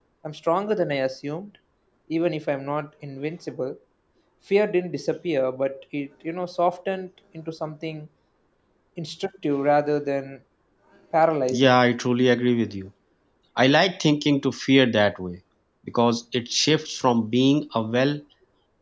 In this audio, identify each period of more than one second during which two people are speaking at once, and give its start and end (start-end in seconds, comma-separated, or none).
none